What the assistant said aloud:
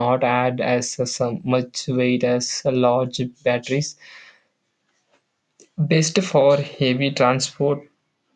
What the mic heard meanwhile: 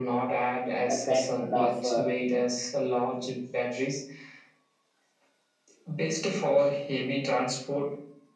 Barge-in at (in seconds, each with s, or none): 0.9 s